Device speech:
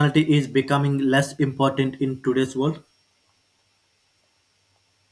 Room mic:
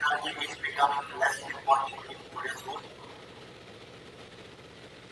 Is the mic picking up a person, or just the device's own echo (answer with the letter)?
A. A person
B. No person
B